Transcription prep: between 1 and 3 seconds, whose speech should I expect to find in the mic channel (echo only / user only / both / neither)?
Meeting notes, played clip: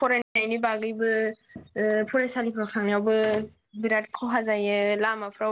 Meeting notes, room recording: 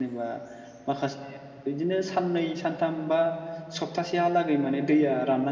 user only